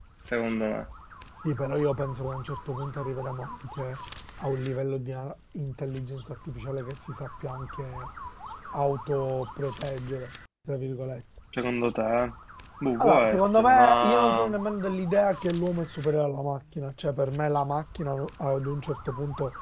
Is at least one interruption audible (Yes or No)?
Yes